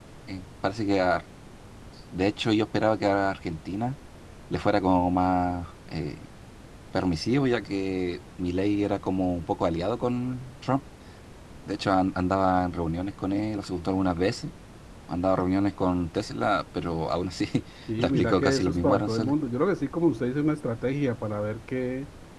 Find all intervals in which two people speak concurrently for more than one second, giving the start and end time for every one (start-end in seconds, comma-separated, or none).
18.0-19.3